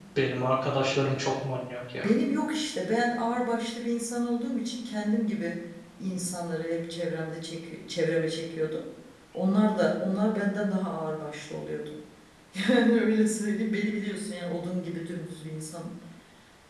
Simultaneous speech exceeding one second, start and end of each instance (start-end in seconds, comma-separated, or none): none